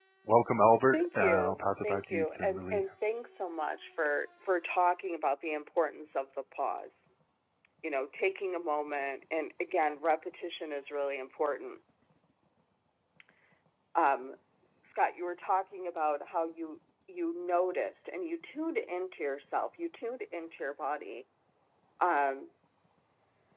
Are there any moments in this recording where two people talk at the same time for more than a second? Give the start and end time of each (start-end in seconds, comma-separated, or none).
0.9-2.8